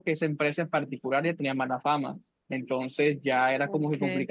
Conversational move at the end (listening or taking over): listening